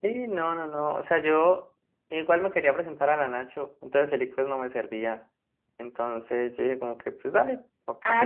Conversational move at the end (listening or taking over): taking over